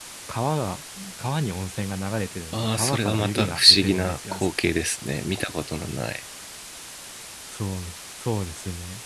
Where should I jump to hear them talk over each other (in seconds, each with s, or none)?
2.5 s